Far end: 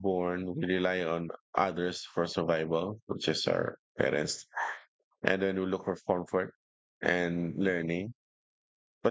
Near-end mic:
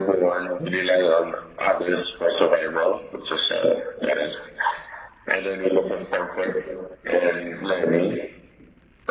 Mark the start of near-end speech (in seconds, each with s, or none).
none